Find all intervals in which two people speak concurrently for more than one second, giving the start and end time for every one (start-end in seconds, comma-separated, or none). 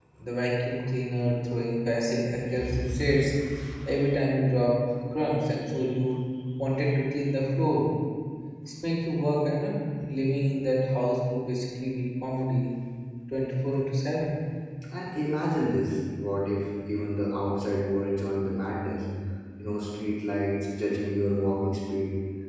none